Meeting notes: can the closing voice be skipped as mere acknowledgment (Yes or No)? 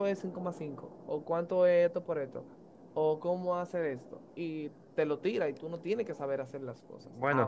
No